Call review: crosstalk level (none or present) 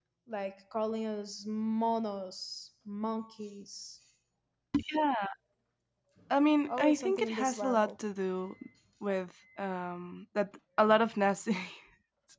present